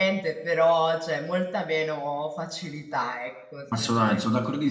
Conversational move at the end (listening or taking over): taking over